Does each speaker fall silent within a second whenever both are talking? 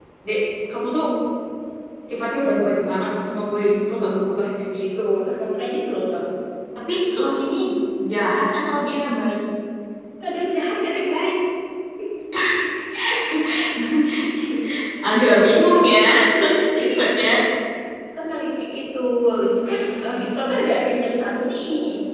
Yes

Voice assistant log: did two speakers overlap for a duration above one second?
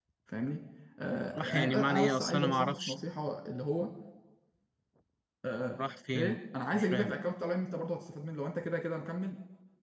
Yes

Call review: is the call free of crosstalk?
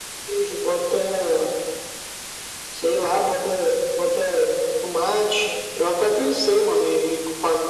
Yes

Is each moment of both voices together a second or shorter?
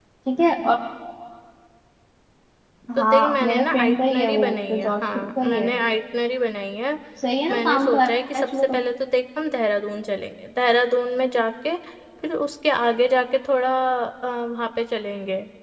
No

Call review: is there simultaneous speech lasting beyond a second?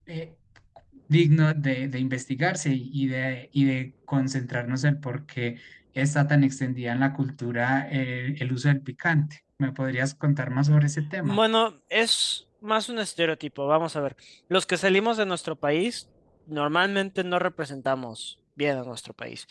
No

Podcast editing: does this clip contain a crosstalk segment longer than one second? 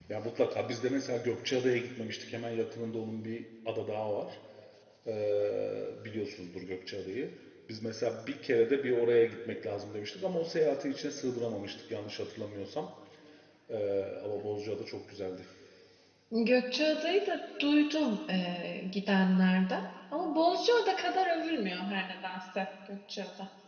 No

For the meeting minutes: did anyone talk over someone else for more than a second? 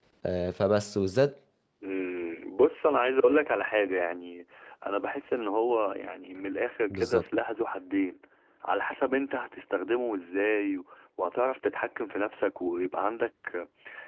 No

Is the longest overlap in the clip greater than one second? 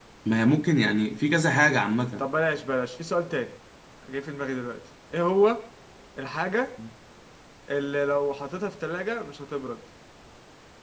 No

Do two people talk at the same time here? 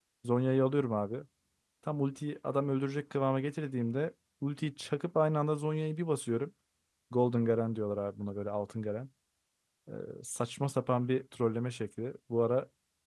No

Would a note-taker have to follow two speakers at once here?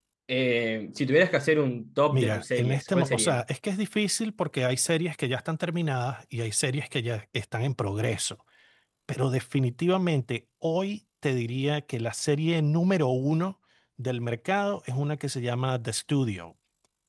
Yes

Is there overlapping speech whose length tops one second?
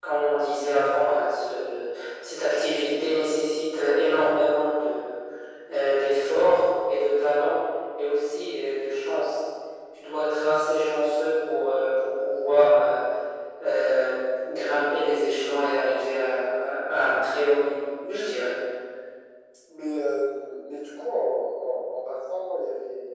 No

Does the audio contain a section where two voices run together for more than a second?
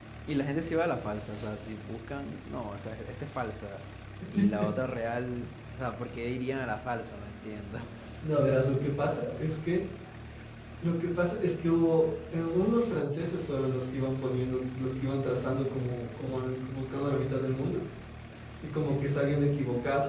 No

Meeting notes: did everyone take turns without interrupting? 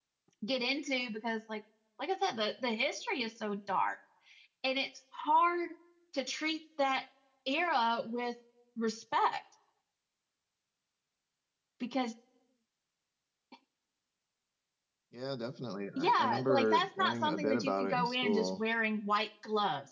No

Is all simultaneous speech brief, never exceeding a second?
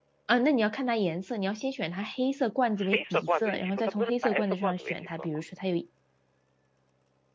No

